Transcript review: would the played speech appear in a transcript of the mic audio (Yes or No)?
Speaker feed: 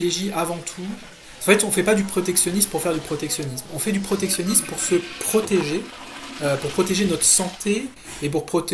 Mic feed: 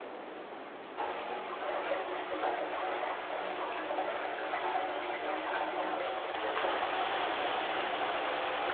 No